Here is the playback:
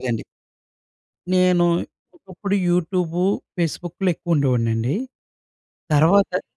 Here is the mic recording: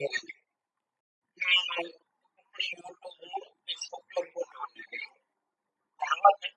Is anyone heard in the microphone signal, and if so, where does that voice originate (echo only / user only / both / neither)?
echo only